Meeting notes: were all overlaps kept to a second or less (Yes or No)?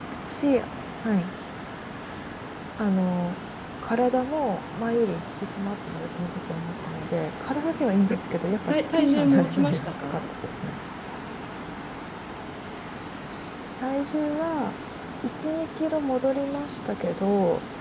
No